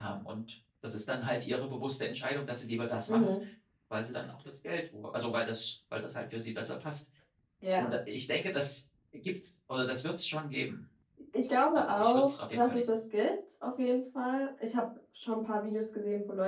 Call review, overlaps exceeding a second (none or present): present